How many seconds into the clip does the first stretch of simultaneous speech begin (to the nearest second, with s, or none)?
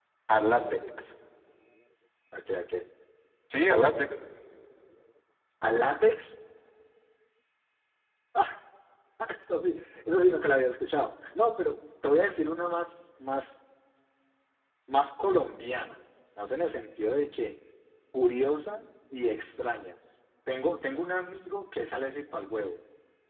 none